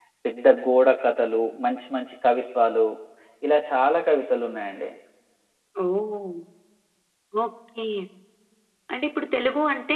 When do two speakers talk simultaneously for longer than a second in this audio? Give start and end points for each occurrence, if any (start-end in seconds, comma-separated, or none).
none